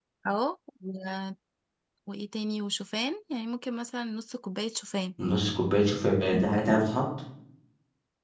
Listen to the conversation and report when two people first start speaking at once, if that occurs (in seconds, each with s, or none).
none